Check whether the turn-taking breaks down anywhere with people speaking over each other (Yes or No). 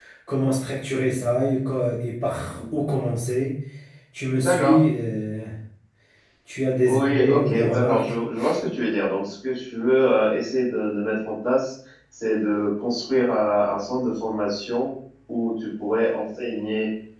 Yes